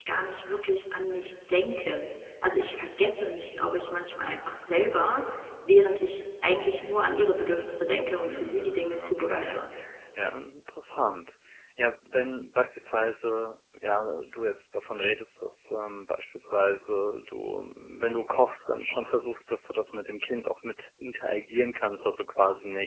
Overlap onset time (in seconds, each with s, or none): 8.1 s